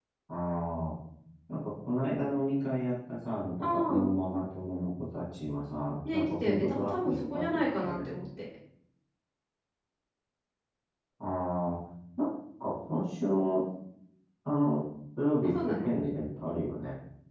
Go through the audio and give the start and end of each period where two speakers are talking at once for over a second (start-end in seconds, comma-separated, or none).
6.1-8.0